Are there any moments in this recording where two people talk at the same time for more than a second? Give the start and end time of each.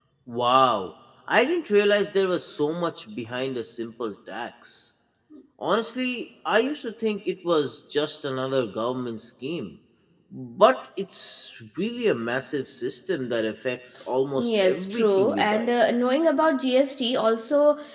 14.3-15.7

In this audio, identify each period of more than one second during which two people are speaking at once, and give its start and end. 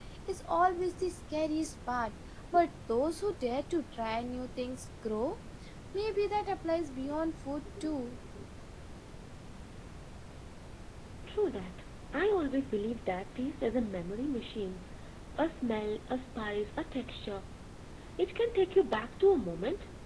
none

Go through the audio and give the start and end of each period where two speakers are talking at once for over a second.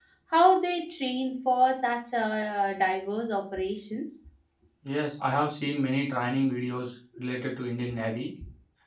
none

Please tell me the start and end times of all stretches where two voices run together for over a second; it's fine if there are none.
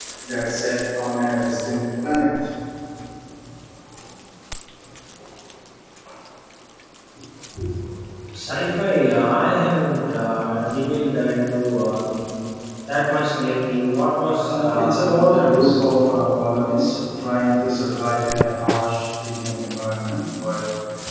14.4-15.8

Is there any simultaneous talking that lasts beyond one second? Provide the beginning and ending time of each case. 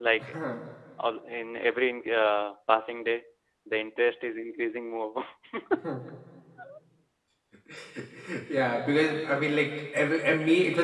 none

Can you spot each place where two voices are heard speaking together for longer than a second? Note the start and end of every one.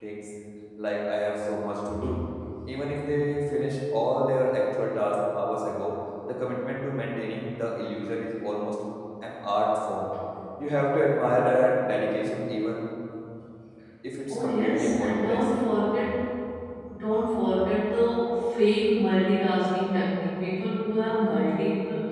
14.3-15.5

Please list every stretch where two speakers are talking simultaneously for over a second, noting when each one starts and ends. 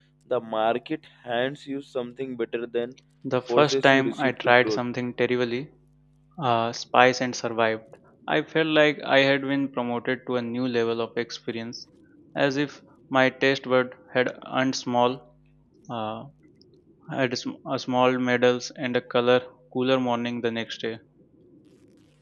3.5-4.8

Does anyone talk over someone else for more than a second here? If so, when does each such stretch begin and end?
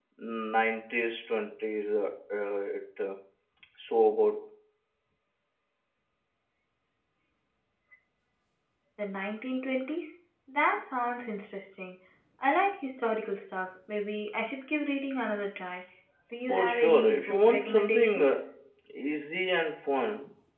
16.5-18.4

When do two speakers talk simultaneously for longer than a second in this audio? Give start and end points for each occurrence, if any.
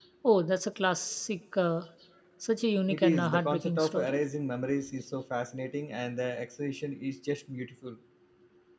2.9-4.2

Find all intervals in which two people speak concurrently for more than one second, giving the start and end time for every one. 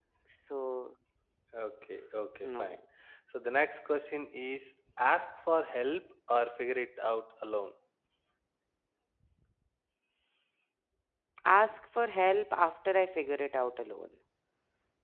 none

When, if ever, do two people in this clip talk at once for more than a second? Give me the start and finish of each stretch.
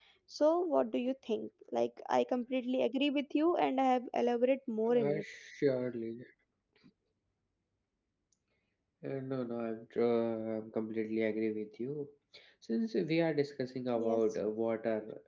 none

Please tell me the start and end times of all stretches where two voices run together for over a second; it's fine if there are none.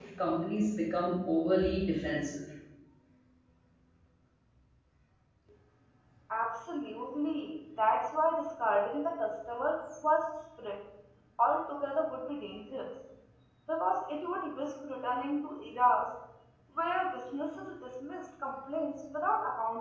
none

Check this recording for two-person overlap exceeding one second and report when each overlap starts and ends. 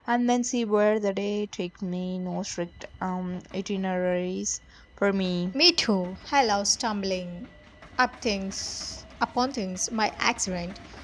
none

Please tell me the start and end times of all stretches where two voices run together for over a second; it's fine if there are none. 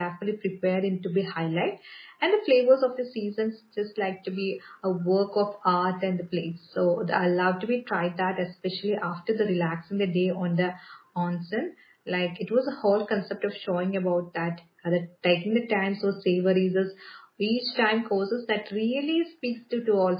none

